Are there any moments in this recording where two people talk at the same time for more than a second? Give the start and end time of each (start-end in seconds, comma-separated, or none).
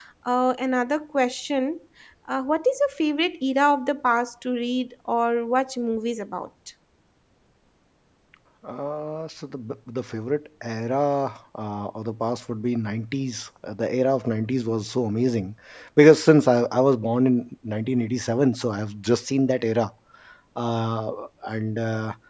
none